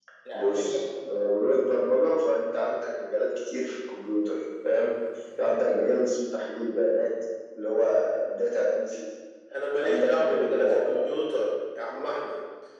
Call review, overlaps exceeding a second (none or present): present